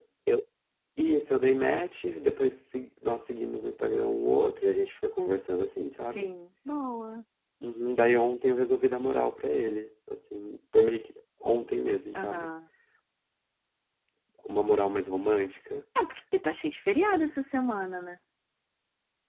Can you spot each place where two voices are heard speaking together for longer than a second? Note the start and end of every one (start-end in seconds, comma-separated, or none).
none